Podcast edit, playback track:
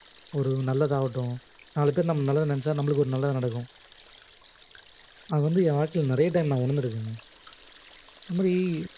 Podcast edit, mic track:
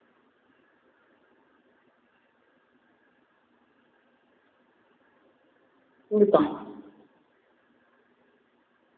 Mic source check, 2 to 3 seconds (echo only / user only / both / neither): neither